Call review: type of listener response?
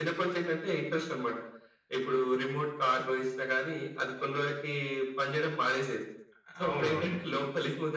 listening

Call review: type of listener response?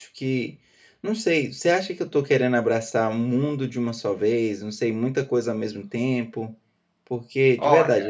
listening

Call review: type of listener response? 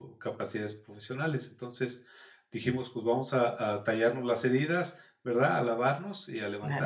listening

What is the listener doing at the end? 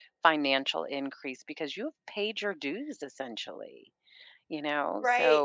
taking over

